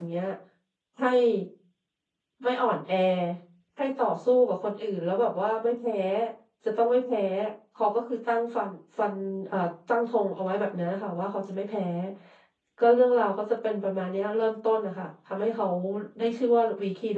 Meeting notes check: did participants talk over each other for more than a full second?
No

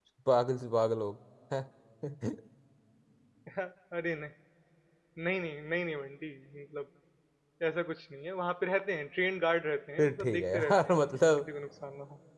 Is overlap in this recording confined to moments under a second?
No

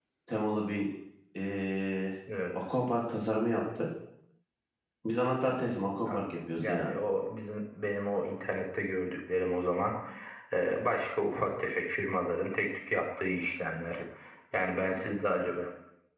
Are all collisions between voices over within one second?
No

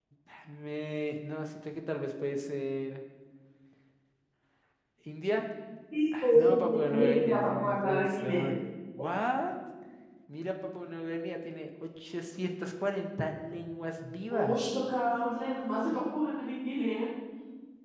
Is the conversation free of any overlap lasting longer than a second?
No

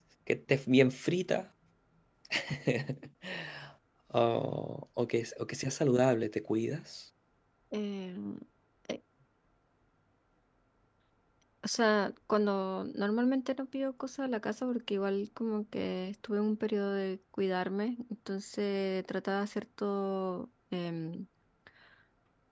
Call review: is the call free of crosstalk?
Yes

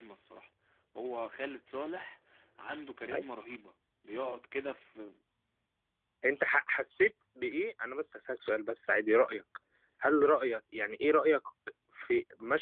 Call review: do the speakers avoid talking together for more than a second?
Yes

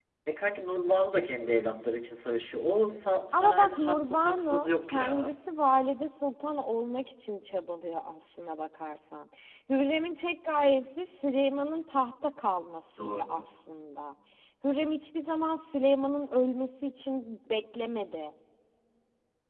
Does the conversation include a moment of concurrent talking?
Yes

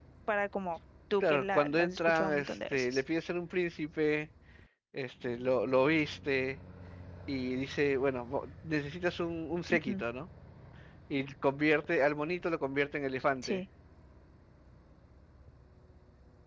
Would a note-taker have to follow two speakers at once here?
Yes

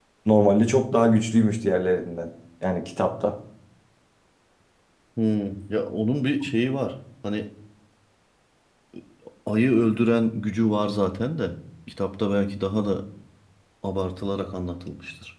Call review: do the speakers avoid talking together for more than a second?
Yes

